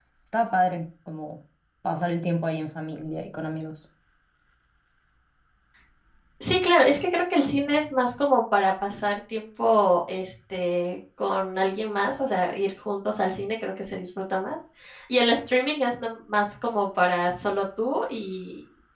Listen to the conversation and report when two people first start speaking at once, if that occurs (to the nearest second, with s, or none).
none